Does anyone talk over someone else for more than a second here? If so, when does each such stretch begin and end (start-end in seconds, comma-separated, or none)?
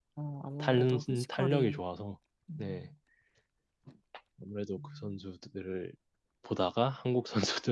0.6-1.8